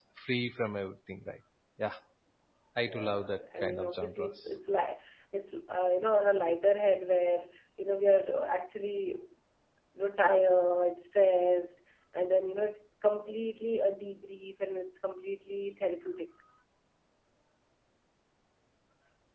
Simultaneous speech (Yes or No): Yes